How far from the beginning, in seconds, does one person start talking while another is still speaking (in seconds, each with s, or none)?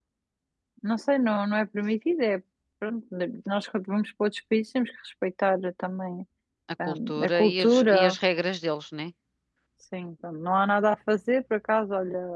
6.8 s